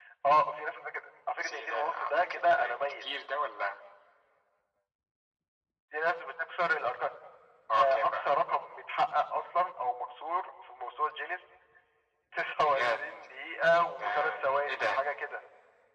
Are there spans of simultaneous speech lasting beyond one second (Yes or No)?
Yes